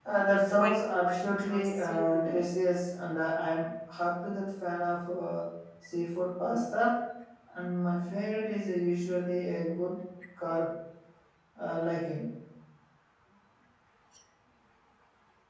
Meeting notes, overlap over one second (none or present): present